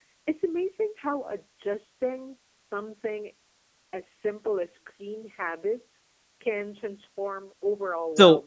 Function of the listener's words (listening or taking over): taking over